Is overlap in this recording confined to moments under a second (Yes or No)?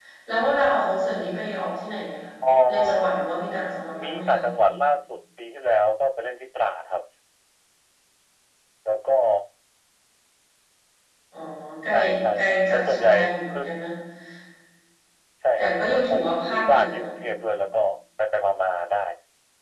No